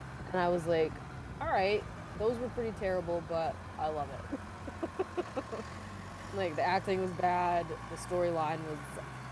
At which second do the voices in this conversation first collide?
none

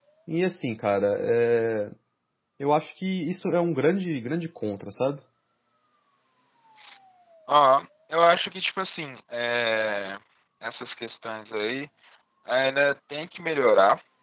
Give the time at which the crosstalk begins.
none

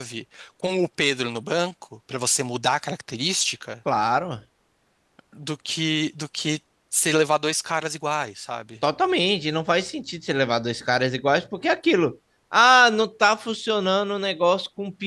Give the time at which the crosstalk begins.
none

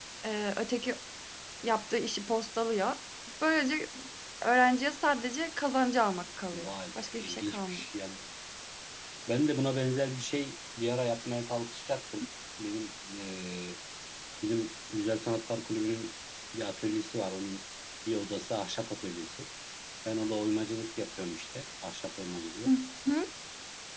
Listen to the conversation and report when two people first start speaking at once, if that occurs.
6.5 s

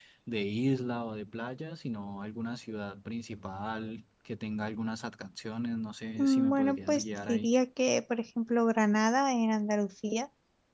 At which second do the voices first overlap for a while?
6.2 s

